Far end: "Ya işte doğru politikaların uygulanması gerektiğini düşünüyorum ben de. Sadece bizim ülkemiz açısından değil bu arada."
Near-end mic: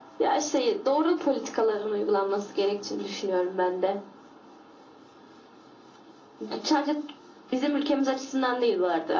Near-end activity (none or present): none